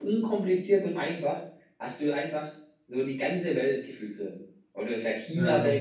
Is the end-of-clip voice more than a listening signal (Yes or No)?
No